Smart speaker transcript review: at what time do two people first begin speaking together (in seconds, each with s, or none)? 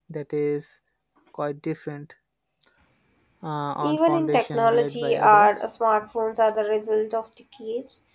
3.8 s